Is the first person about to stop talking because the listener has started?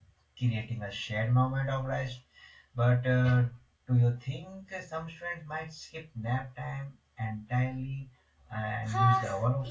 Yes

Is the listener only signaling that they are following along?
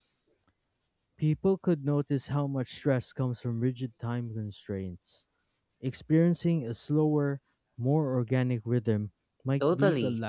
No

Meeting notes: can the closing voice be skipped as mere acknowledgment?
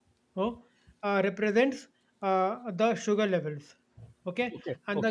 Yes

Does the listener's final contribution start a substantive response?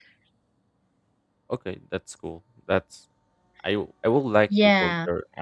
No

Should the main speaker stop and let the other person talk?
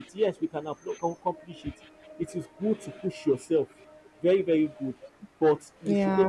No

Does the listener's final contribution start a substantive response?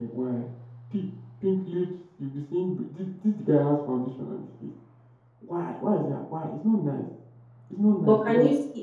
Yes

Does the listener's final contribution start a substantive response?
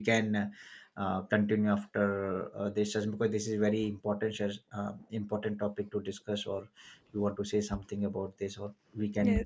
Yes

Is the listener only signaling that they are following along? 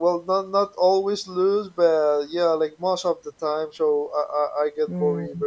Yes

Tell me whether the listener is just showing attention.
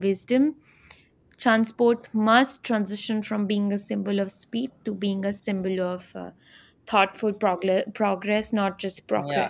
No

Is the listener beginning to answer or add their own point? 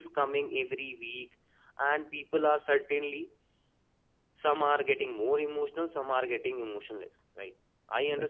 No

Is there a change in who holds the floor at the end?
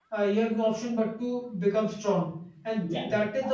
No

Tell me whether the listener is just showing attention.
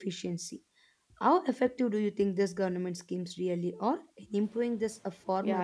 No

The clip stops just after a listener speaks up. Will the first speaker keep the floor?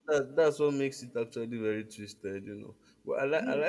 Yes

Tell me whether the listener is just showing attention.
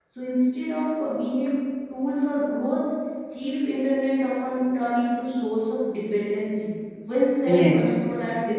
Yes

